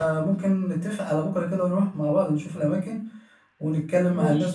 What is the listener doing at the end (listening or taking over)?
listening